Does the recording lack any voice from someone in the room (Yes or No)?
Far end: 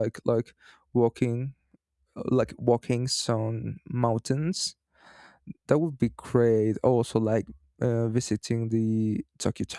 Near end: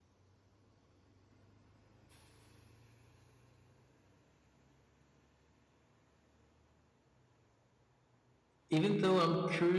No